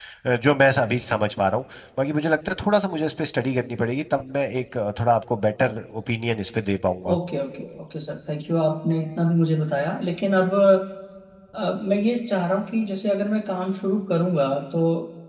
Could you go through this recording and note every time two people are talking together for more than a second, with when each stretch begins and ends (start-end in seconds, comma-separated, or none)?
none